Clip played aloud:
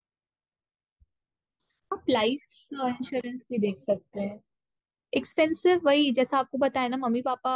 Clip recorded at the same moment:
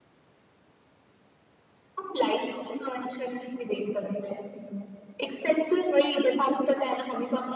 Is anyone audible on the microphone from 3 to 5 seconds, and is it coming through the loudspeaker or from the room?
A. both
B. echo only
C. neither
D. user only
B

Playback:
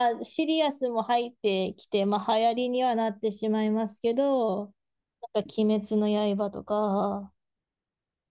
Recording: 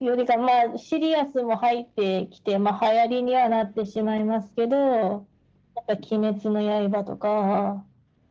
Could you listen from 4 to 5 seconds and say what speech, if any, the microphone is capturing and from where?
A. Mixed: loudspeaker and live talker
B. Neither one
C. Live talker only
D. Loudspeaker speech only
D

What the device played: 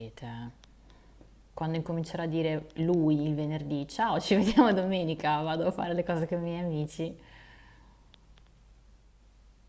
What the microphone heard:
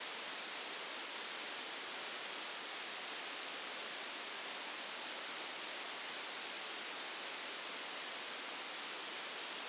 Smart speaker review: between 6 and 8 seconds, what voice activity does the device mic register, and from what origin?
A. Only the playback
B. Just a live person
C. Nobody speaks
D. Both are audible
C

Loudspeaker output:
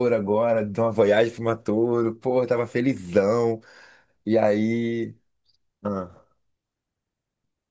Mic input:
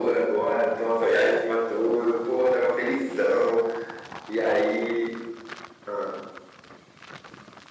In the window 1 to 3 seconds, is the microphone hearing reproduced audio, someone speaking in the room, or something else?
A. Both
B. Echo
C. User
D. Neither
B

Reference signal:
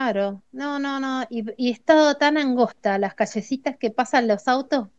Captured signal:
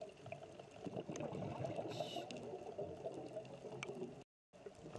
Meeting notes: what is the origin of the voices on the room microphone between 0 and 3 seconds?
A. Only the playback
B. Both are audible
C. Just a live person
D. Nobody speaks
D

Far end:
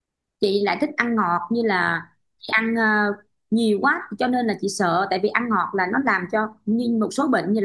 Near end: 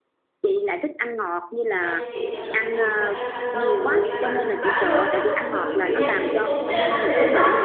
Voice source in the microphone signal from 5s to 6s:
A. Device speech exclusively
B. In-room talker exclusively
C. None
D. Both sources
D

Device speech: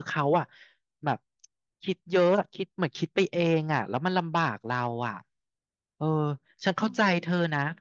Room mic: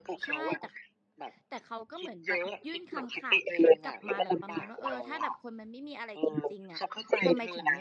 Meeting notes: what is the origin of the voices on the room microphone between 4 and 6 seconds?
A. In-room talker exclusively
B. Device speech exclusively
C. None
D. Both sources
D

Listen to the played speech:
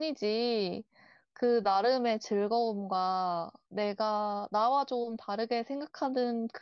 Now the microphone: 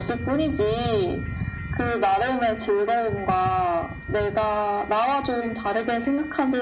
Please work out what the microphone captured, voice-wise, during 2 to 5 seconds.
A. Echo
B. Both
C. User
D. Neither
A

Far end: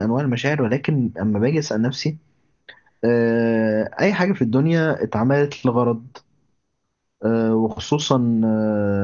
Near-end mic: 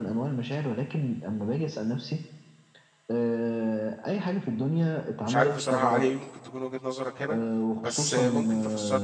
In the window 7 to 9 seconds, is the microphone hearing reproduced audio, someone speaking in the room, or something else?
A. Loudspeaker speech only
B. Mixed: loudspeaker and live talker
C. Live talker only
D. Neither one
B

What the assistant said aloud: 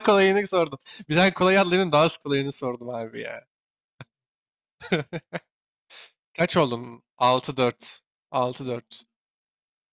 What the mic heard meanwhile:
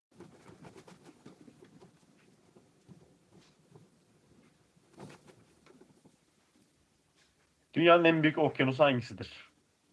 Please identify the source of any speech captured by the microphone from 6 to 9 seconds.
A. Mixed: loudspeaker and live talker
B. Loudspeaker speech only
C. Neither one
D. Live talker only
D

